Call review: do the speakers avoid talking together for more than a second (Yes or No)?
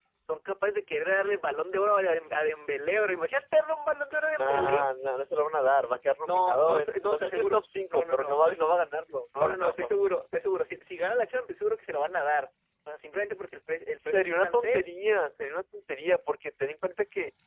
No